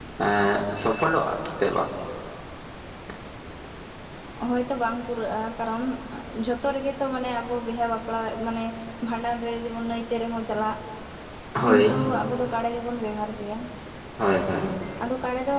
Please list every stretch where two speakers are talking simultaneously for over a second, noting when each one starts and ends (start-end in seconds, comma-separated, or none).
none